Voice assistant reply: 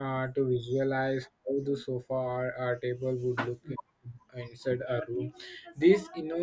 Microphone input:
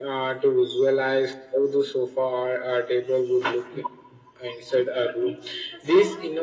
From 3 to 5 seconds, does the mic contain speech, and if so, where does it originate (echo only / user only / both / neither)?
echo only